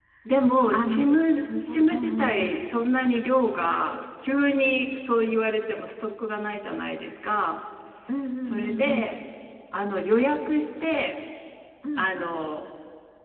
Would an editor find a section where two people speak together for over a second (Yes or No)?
Yes